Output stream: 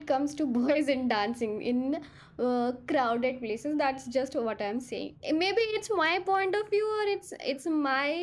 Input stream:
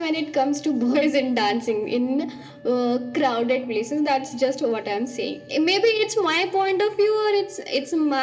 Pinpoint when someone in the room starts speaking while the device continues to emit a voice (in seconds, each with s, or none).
none